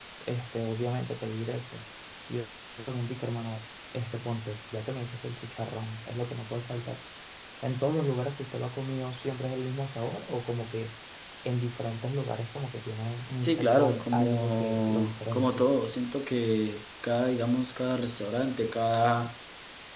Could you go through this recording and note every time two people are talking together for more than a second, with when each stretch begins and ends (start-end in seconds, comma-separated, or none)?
13.4-15.7